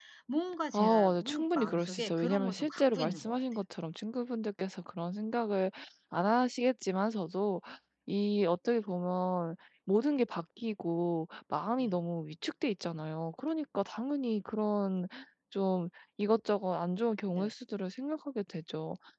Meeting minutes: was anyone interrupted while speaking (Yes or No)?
Yes